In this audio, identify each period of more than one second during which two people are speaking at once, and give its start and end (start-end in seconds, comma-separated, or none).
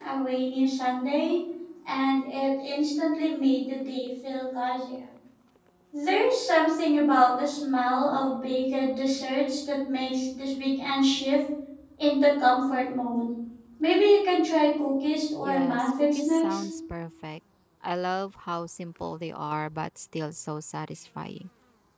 15.4-16.6